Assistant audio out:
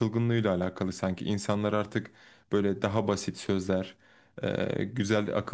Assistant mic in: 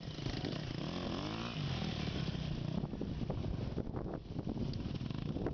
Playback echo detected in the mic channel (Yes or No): No